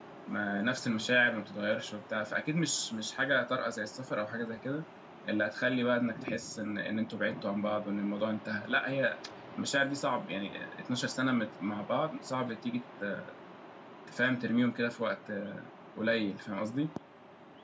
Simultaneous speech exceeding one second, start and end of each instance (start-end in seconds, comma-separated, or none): none